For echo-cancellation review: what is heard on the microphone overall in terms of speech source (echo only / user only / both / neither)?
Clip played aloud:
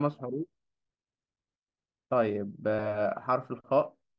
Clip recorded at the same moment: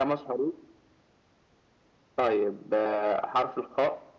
echo only